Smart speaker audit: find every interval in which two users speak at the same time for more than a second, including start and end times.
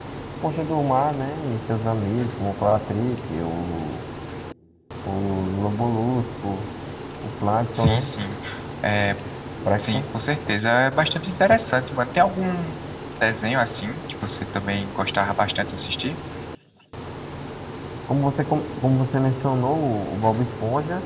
none

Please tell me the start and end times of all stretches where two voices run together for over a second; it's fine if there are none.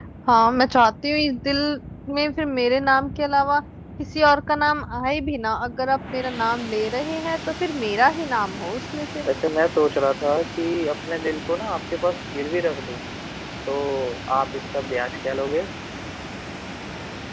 none

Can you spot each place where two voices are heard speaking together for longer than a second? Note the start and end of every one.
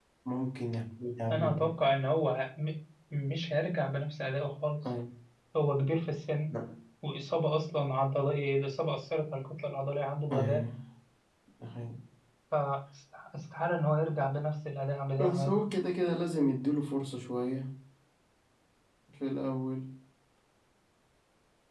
none

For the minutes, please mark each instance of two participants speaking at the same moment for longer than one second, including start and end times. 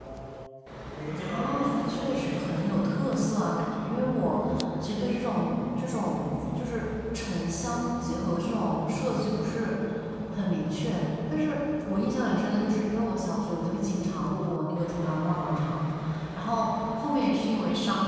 1.1-2.9

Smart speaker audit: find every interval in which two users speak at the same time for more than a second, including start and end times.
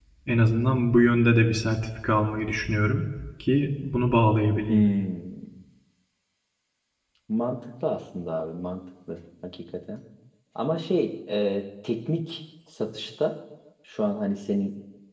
none

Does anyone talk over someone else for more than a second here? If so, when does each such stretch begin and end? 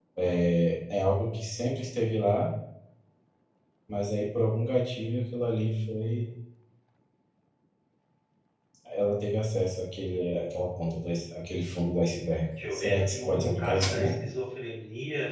12.7-14.1

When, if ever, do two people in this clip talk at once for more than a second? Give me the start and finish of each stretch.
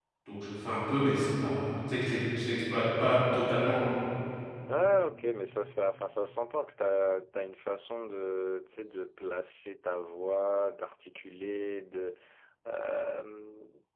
none

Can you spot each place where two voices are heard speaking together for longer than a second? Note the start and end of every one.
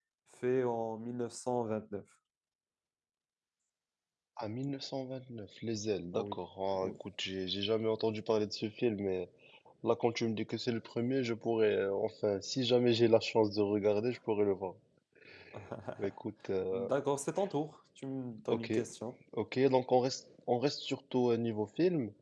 none

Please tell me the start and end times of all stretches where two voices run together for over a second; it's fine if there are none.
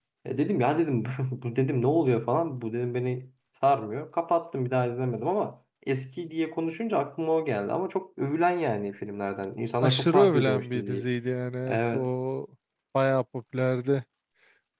9.8-11.0

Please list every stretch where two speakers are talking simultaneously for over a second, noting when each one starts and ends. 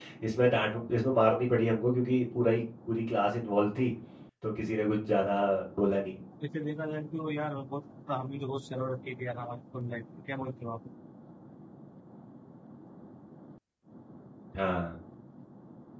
none

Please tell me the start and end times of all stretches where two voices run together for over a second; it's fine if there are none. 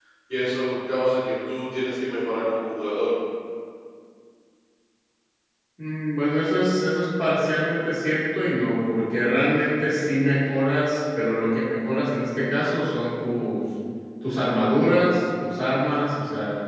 none

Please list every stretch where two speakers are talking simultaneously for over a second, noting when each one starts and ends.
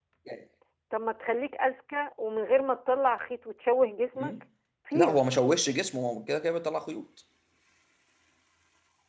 none

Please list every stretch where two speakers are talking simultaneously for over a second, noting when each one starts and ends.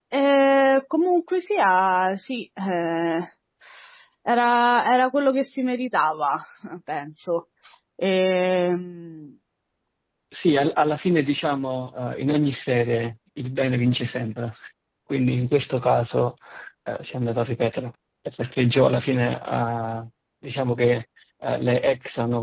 none

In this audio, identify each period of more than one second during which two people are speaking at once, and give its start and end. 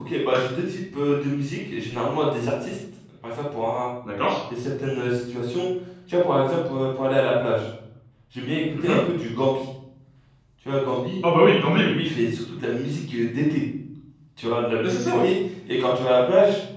none

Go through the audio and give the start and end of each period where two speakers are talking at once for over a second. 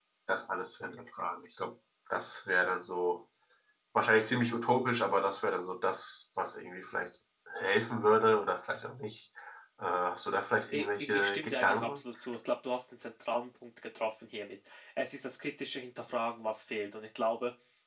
10.7-12.0

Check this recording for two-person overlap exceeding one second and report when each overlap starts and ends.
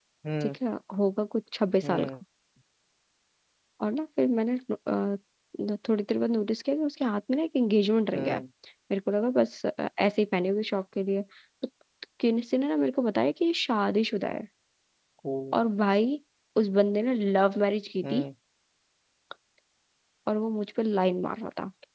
none

